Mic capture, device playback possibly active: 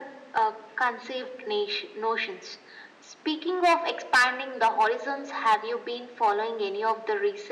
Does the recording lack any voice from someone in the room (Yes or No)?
Yes